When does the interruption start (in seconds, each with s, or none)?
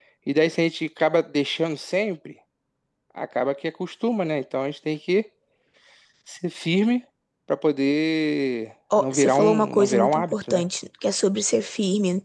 8.9 s